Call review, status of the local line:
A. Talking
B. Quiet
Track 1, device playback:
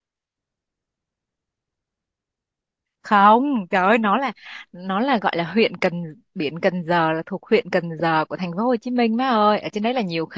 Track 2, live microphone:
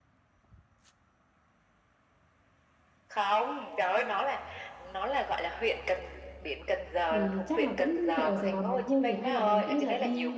A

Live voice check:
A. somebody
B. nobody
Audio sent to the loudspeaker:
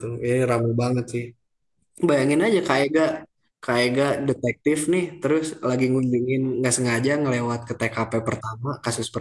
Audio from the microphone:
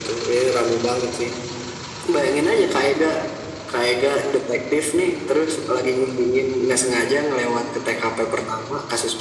B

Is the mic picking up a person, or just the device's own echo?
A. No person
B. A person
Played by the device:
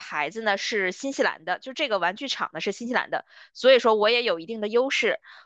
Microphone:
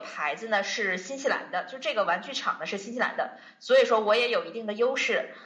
A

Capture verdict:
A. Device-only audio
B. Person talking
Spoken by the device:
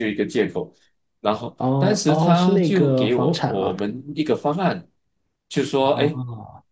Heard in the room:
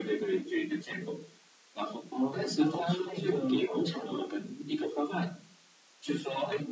A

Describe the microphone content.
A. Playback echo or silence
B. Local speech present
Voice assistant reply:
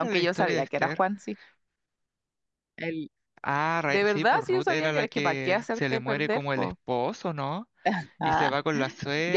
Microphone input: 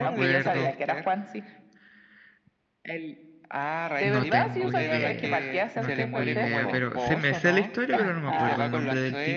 B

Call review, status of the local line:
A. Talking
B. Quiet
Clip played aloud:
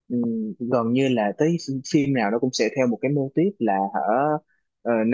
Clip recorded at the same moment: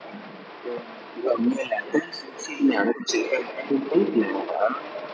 B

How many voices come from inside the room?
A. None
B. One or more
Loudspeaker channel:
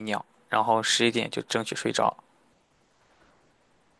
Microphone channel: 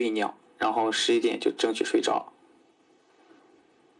A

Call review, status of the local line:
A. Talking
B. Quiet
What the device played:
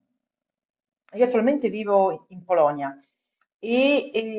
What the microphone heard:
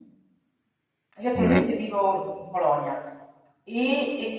A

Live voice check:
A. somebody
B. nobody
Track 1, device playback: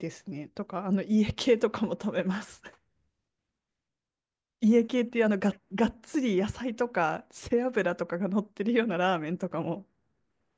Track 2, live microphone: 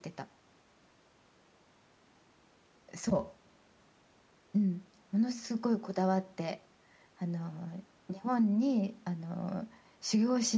A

